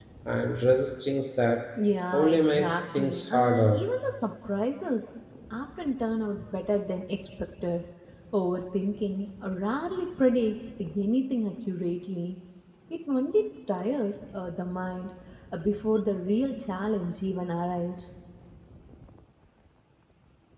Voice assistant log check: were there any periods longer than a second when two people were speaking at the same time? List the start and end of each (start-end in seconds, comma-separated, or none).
2.1-3.8